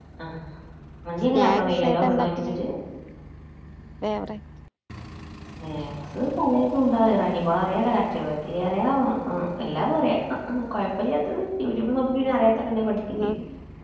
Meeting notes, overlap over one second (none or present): present